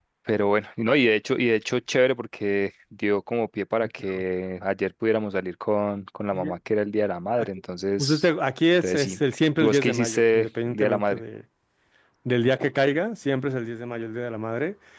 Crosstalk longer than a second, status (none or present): present